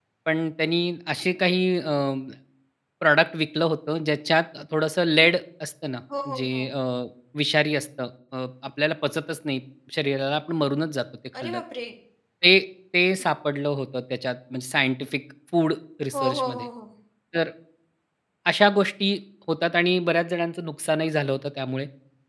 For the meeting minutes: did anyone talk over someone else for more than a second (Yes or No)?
No